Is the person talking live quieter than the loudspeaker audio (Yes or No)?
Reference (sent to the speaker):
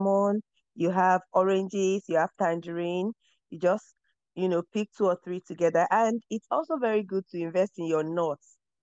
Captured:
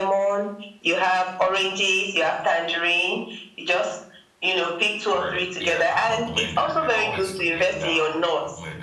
Yes